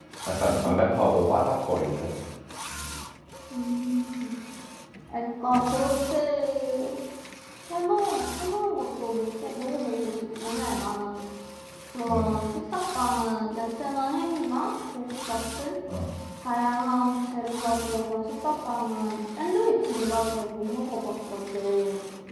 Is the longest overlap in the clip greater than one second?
No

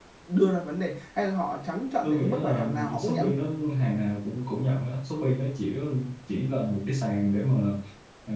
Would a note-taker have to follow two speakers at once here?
Yes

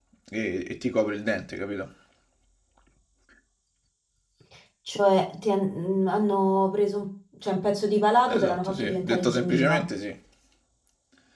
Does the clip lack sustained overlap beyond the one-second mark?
No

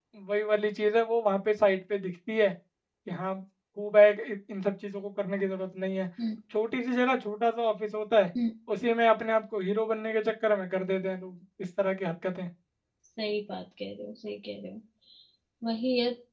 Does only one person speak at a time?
Yes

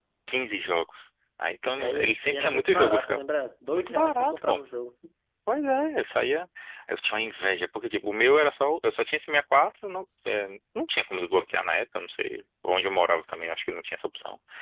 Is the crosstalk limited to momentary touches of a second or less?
No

